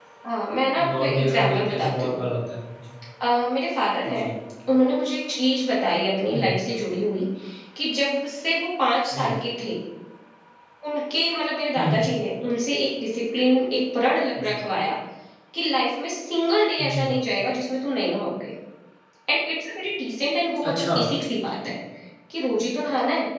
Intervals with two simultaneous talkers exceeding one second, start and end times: 1.0-2.2

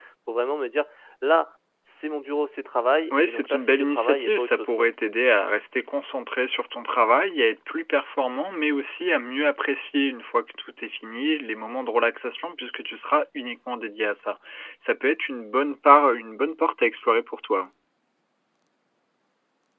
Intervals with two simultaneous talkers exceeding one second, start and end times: 3.1-4.9

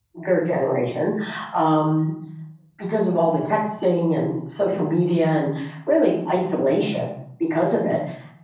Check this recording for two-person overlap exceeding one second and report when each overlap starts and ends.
none

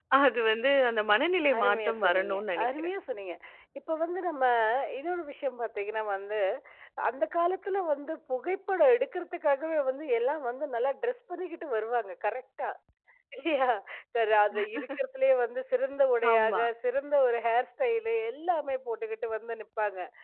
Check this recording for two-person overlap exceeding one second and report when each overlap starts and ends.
1.6-2.9

